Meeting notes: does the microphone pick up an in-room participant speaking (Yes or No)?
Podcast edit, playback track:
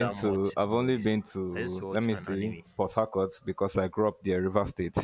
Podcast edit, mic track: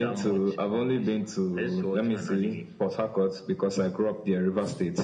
No